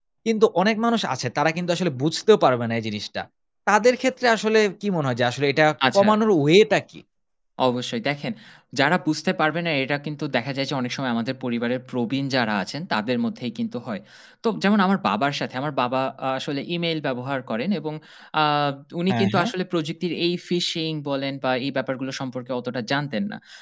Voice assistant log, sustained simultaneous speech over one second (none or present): none